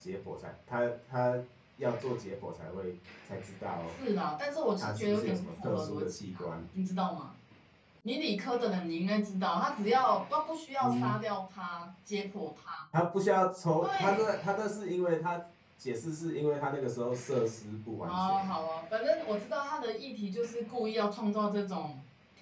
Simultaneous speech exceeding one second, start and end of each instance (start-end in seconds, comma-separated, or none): 4.8-6.5